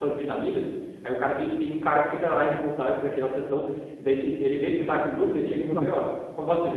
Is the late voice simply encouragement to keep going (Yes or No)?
Yes